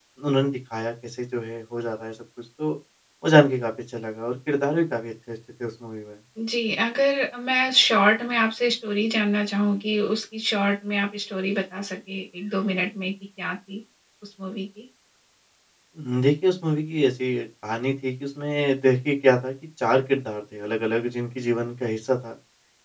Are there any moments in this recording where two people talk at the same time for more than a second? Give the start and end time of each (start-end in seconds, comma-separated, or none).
none